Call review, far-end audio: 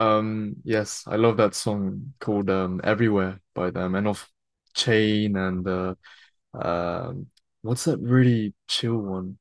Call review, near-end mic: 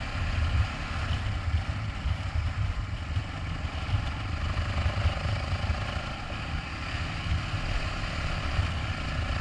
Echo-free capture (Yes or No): Yes